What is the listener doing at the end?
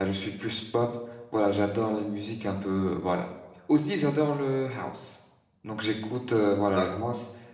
listening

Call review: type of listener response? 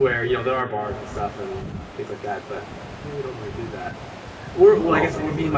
listening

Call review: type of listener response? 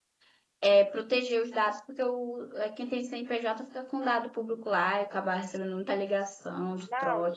taking over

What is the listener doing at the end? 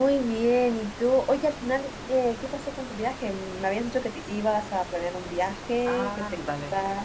taking over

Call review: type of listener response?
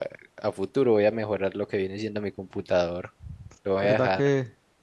taking over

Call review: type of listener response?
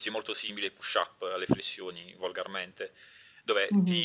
listening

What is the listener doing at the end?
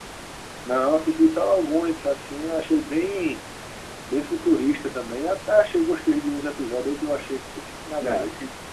taking over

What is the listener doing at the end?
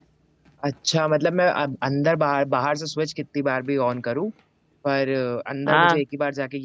listening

